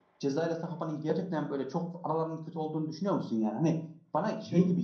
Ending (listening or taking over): listening